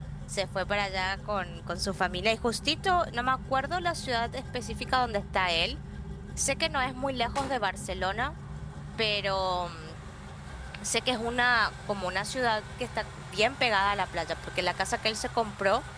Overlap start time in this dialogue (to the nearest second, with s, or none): none